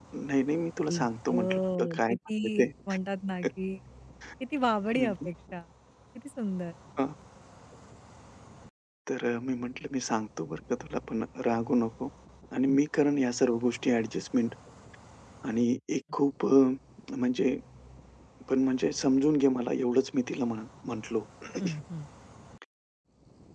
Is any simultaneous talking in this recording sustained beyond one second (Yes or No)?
Yes